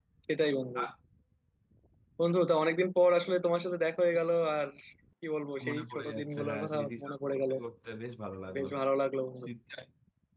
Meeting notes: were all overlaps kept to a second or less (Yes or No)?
No